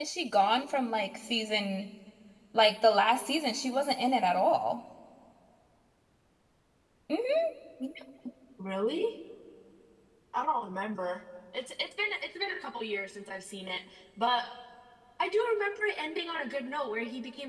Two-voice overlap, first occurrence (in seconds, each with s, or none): none